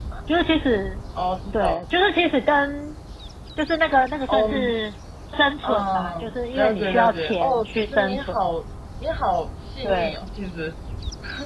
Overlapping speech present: Yes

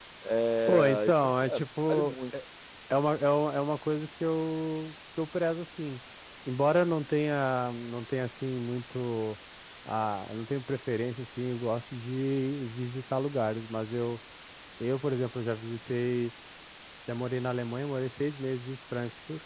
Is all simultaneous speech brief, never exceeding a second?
No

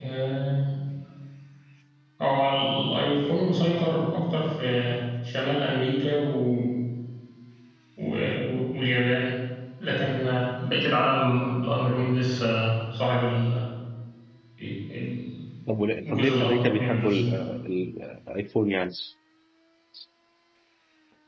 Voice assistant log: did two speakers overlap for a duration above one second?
Yes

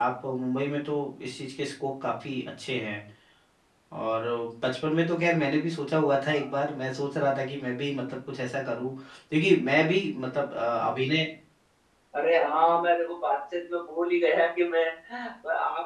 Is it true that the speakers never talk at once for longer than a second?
Yes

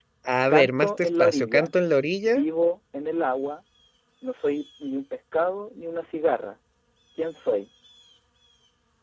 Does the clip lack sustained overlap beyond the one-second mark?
No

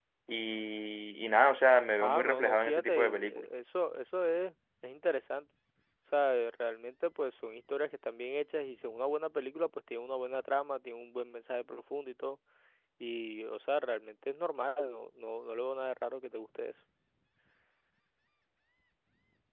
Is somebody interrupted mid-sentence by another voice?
Yes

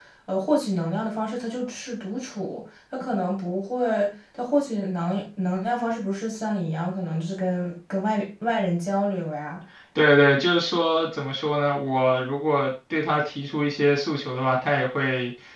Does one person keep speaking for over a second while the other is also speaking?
No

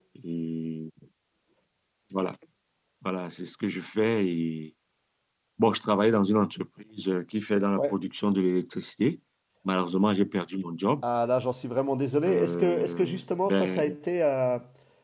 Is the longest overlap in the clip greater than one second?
Yes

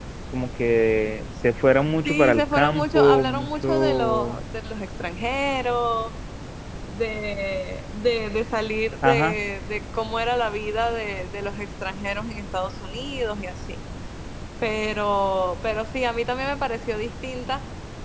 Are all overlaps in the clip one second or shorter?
No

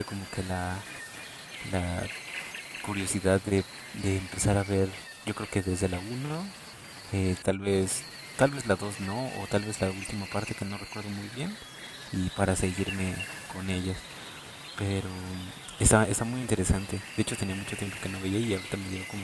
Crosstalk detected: No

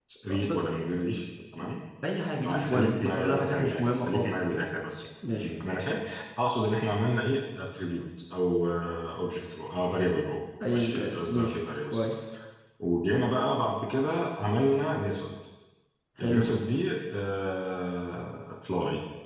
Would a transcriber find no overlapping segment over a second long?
No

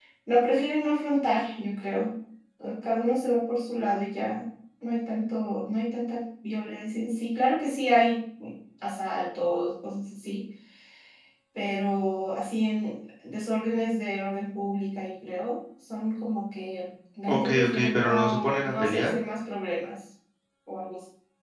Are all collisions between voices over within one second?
No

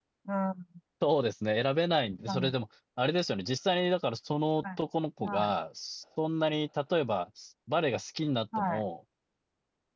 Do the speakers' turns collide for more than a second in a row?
No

